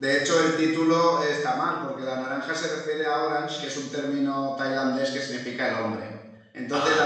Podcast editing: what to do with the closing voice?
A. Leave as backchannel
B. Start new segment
A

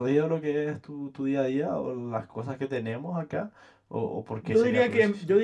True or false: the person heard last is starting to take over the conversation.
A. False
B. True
B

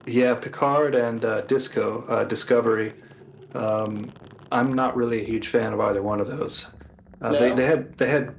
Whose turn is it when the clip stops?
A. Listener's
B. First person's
B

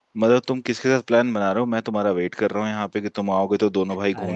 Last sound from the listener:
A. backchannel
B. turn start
B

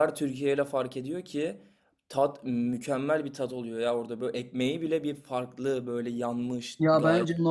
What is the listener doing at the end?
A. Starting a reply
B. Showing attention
A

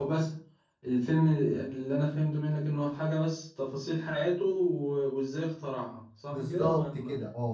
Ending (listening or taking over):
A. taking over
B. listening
A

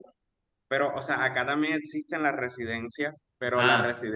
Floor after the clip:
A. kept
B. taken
A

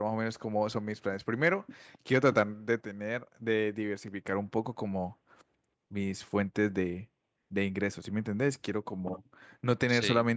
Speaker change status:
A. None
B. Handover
A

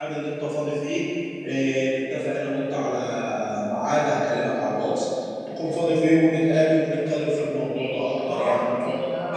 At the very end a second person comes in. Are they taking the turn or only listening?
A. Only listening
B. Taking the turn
B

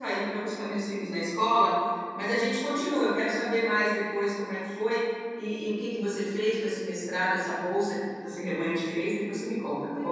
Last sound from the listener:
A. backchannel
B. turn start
B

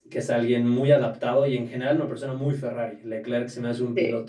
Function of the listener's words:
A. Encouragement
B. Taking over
A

